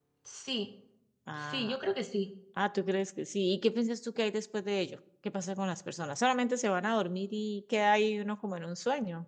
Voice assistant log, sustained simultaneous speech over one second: none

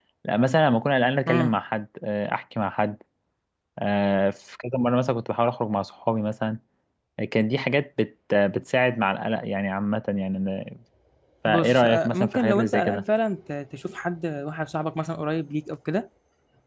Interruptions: present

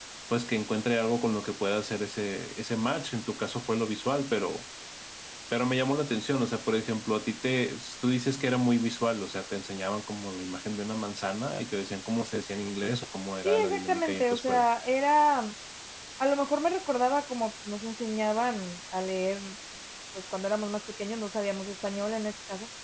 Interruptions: present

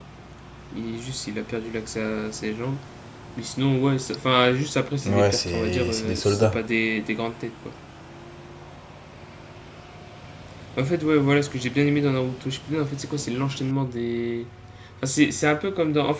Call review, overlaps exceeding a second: present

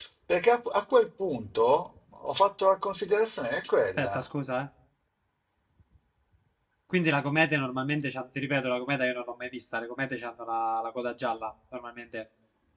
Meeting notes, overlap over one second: none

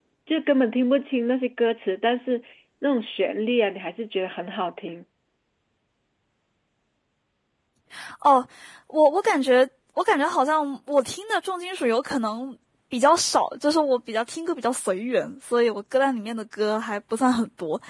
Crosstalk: none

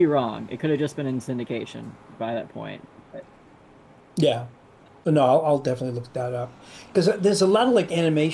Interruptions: none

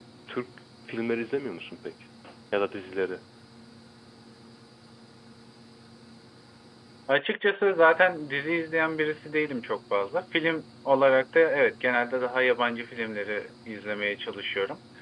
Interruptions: none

